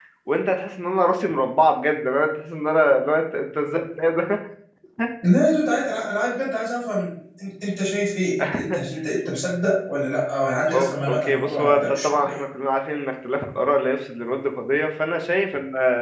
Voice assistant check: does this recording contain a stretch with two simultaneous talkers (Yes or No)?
Yes